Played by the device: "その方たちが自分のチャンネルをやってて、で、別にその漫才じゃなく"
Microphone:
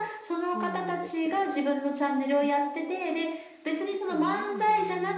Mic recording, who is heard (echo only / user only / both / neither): both